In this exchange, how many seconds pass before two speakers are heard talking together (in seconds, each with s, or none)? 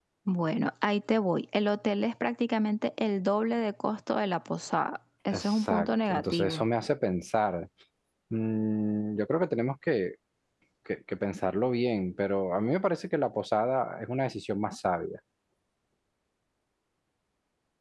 5.3 s